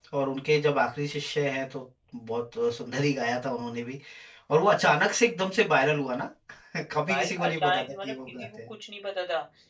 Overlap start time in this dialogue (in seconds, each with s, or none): 7.1 s